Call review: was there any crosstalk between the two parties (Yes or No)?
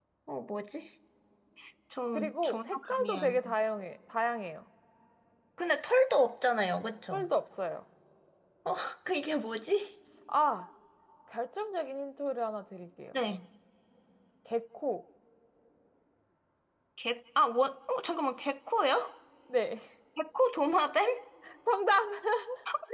Yes